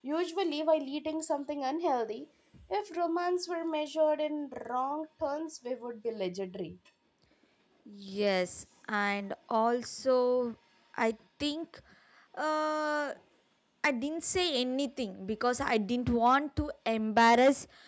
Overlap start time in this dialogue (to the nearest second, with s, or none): none